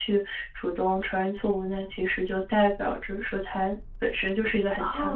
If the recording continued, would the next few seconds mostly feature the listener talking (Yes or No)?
Yes